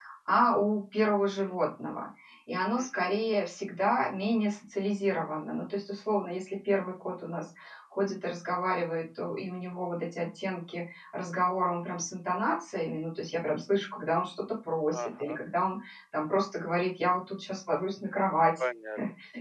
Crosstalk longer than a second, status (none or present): none